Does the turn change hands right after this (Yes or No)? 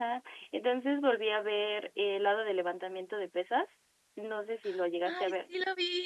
Yes